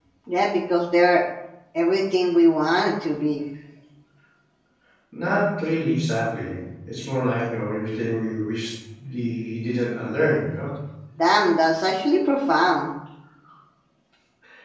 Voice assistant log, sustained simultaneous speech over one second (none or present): none